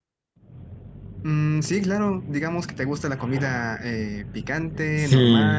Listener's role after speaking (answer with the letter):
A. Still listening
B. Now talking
B